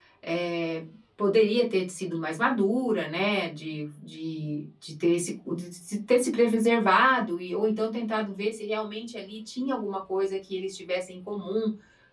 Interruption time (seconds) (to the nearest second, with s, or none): none